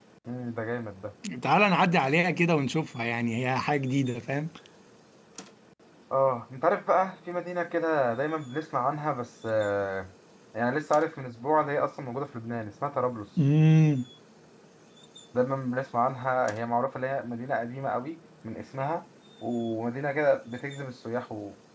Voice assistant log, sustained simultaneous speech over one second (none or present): none